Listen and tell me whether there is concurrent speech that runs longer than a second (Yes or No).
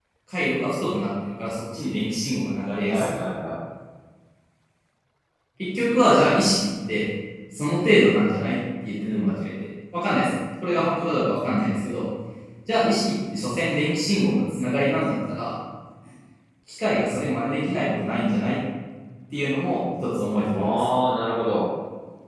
No